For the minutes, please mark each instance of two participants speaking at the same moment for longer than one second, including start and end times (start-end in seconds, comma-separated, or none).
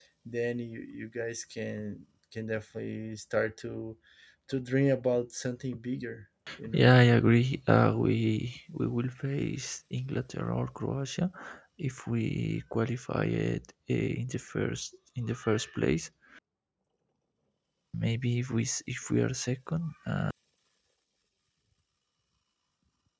none